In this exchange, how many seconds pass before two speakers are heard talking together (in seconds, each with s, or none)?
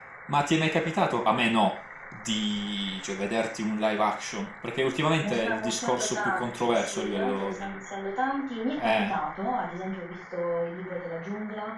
5.2 s